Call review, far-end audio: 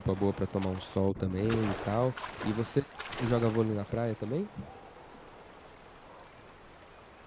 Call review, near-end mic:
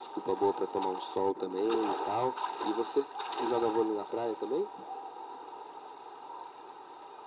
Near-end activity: none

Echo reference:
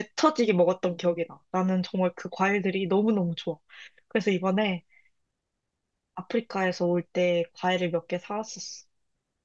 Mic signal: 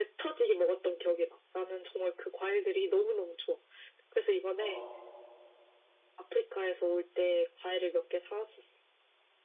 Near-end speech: present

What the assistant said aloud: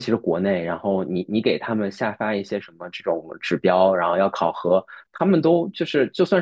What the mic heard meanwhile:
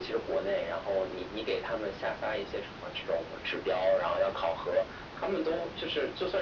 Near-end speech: none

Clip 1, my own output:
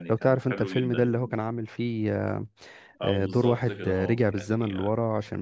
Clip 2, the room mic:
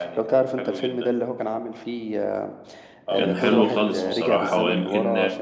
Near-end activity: present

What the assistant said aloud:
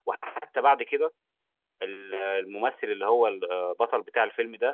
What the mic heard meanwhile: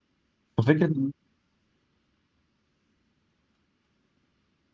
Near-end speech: present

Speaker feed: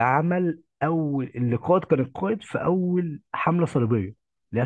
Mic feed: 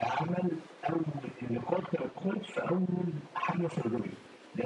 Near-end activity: none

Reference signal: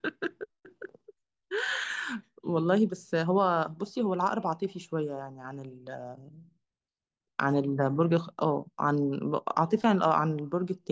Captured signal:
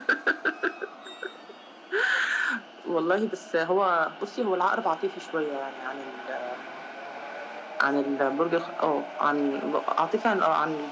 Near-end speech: none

